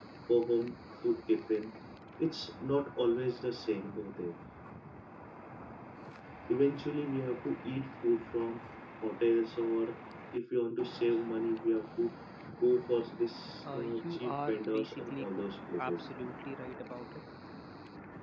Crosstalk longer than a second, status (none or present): present